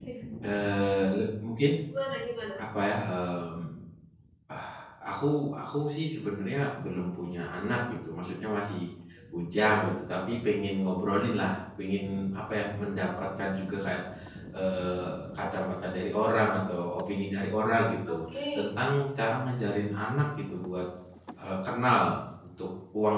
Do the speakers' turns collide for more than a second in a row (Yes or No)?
No